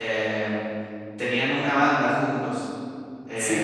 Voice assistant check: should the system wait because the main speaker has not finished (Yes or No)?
No